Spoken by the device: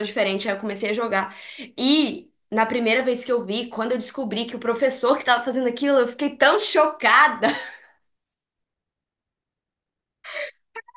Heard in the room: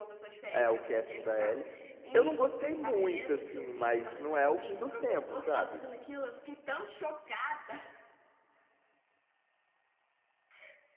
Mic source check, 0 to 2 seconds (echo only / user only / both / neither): both